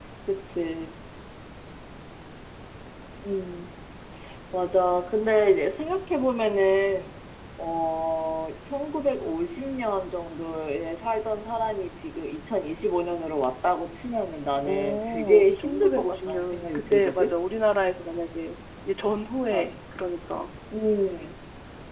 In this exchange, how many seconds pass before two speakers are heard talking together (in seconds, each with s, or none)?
14.6 s